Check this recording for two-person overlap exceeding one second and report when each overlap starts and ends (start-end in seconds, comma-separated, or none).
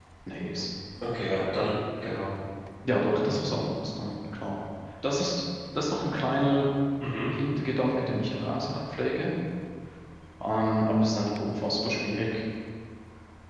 none